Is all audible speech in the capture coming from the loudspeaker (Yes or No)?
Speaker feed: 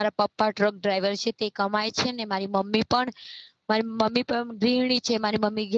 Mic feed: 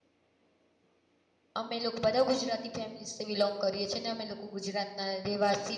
No